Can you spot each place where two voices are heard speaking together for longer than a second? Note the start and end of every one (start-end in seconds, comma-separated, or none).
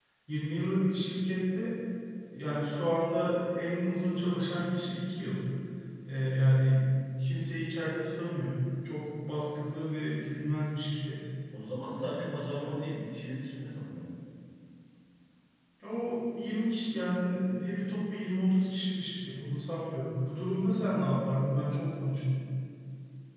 none